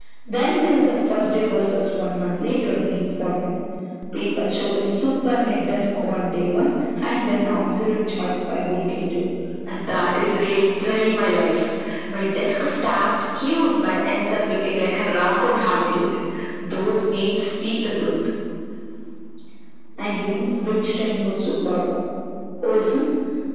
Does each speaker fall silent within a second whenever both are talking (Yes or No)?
Yes